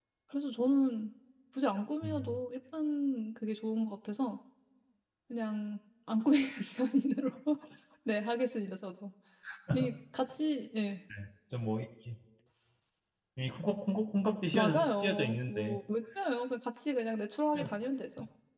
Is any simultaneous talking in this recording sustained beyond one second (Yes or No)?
Yes